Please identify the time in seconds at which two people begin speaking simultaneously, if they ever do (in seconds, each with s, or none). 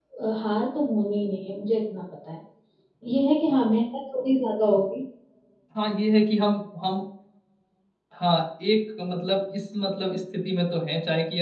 none